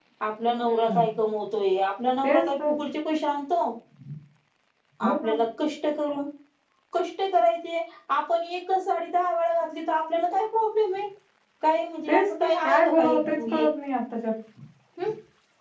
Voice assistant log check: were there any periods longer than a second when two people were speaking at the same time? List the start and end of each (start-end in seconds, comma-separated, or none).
12.1-13.7